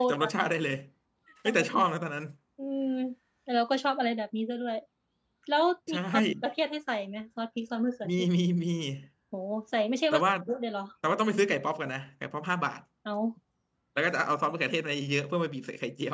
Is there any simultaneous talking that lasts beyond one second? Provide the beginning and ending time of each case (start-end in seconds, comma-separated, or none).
none